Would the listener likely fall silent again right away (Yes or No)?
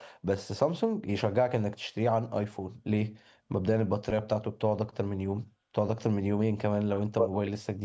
No